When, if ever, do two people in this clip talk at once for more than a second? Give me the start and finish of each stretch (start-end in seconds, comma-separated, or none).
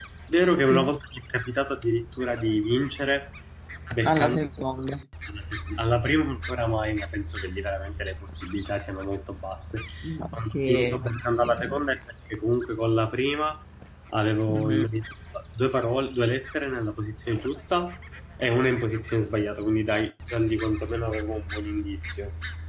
10.3-11.8